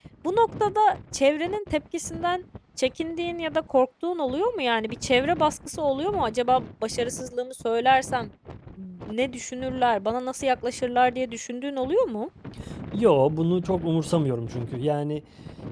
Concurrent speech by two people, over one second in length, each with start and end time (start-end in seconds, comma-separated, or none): none